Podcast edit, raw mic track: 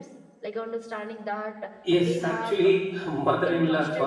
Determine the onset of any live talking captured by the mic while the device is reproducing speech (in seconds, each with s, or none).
1.8 s